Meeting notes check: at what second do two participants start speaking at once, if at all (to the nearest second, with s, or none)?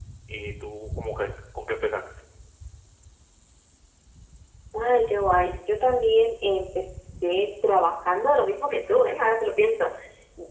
none